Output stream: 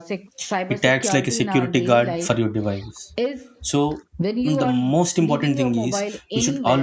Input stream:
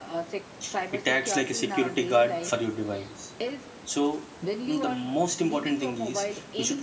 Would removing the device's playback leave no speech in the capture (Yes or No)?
Yes